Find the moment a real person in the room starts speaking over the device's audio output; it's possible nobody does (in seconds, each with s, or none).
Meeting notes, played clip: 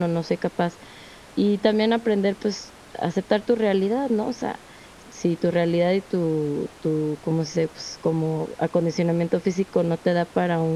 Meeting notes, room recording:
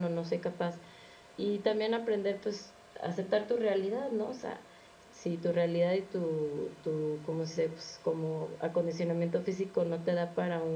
none